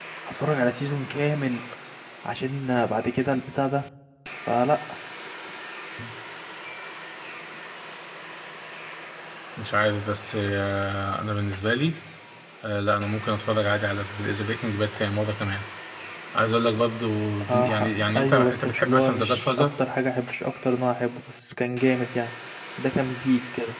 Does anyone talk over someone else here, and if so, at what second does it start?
17 s

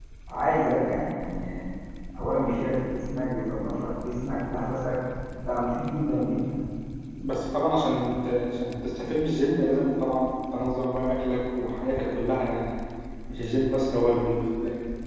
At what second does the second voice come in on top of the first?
none

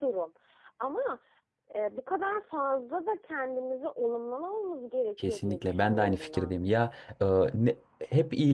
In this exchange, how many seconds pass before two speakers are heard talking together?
5 s

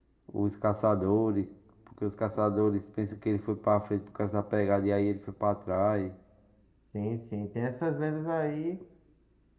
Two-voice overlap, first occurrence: none

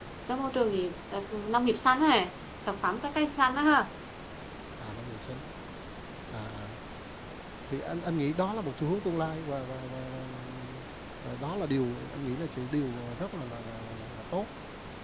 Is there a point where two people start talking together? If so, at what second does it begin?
none

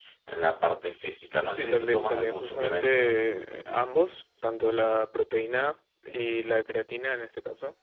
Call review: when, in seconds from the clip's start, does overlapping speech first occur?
2 s

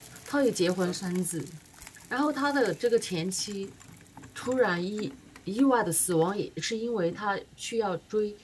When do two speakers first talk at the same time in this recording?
none

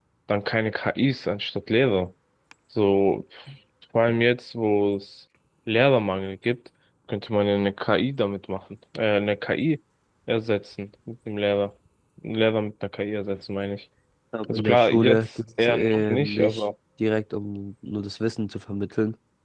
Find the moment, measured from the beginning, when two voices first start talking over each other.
14 s

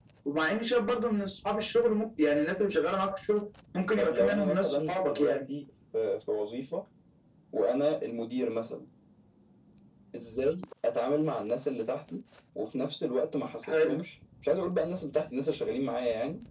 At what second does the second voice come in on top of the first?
4 s

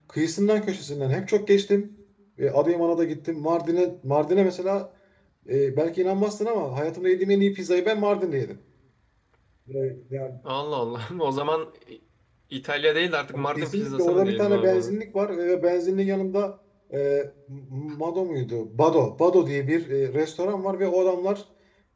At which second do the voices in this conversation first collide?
13 s

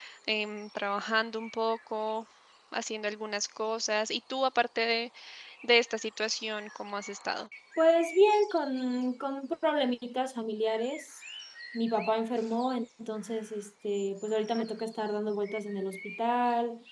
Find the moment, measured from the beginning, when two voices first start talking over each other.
none

